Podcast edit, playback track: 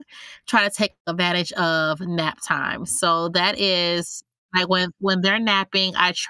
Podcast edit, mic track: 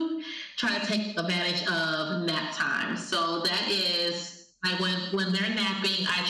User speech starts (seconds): none

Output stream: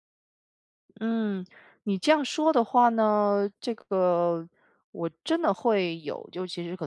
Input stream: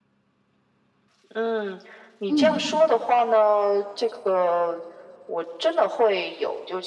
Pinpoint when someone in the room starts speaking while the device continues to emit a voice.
2.3 s

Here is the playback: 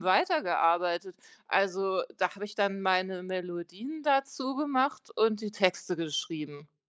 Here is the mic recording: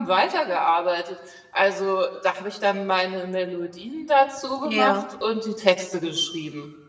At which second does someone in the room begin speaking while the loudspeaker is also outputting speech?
4.6 s

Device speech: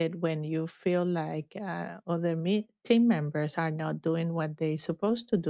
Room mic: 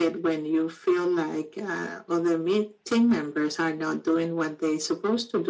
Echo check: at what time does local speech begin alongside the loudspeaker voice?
none

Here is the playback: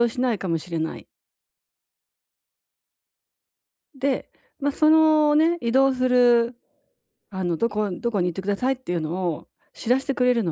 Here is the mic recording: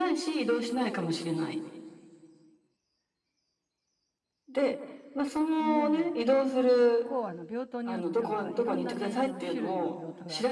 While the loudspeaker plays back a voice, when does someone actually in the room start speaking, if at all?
5.6 s

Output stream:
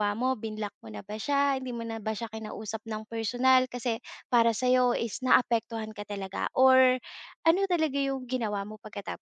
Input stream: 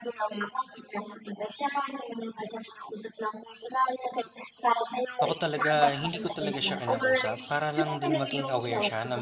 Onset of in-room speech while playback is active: 5.2 s

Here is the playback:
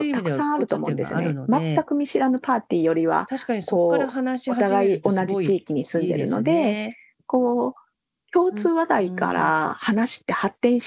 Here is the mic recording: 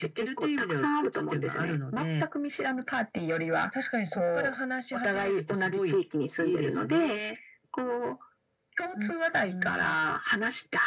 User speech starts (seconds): none

